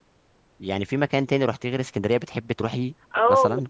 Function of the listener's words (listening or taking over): taking over